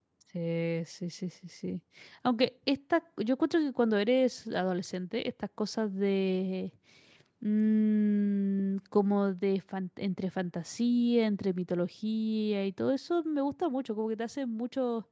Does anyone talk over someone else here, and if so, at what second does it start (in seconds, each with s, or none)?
none